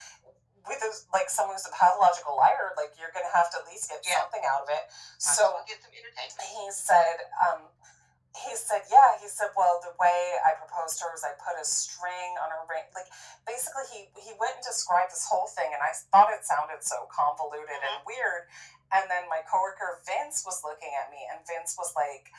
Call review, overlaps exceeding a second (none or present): none